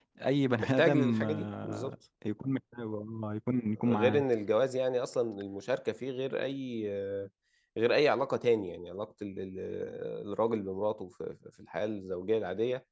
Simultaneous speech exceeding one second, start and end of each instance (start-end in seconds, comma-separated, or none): 0.6-1.9